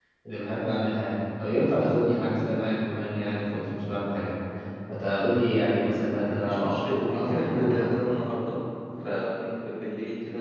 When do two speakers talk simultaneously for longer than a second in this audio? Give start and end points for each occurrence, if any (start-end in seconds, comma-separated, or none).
6.0-7.8